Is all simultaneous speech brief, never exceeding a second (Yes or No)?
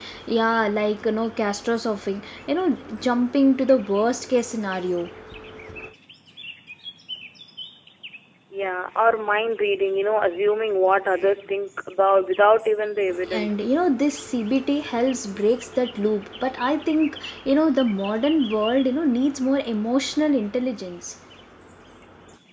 Yes